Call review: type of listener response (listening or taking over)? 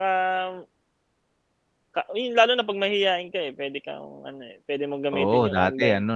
taking over